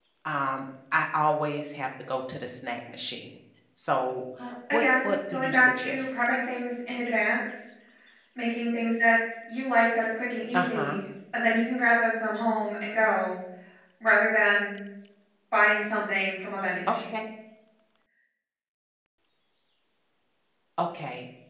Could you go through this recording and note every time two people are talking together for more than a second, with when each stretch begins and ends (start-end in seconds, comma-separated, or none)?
4.7-6.2